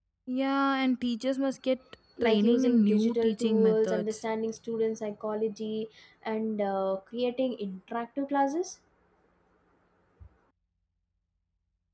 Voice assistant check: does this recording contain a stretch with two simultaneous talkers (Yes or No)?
Yes